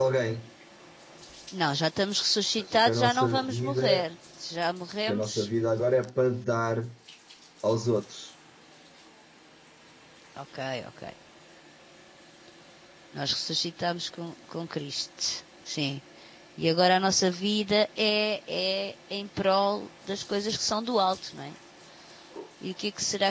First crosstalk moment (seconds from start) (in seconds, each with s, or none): 2.6 s